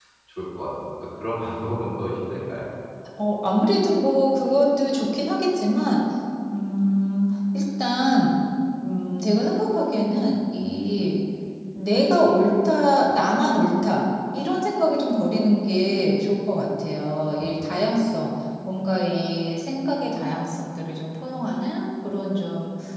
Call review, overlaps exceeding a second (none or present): none